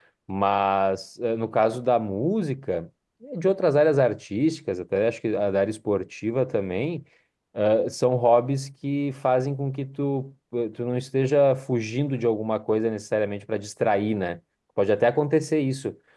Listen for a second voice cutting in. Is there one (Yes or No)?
No